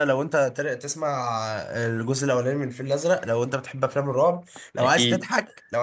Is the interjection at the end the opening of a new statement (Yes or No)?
No